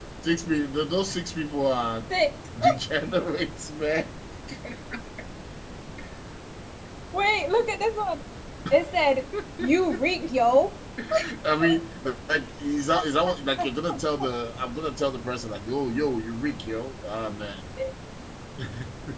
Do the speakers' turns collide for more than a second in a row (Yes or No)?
No